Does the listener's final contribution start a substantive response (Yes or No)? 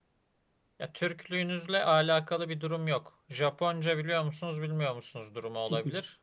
No